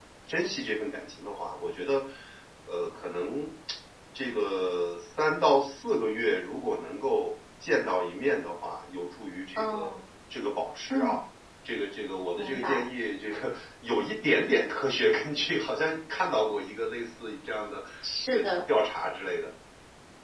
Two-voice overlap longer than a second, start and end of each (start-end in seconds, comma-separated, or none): none